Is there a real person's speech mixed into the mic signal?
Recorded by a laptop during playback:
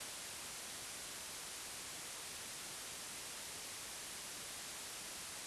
No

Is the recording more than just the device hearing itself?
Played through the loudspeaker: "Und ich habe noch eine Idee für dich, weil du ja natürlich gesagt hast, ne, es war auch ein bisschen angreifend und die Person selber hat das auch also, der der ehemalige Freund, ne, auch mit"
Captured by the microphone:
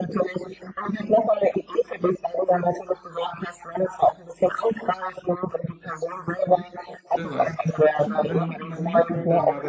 Yes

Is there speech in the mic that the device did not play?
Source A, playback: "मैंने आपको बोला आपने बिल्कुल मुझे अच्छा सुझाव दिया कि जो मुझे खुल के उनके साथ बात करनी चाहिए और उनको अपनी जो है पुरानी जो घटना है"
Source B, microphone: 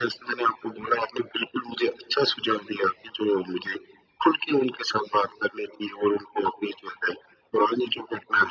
No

